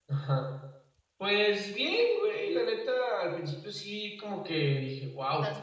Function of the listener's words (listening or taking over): listening